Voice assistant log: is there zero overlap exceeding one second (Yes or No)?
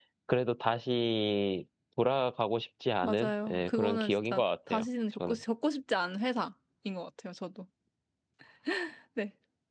No